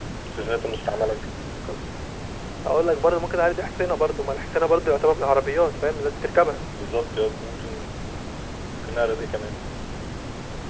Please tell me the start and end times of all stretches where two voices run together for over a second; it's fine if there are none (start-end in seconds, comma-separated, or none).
none